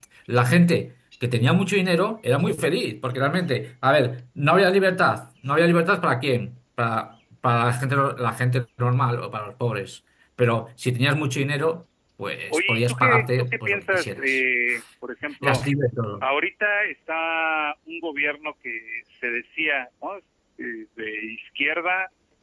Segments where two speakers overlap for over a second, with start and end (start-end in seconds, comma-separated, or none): 12.5-14.4